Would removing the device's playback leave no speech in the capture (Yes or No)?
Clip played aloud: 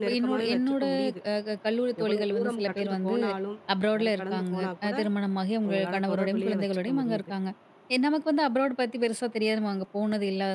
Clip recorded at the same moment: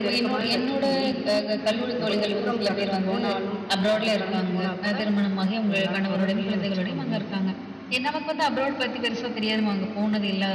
Yes